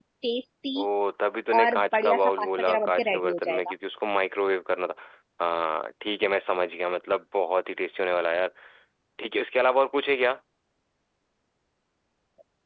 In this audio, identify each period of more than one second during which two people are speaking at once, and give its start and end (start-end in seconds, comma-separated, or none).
1.6-3.7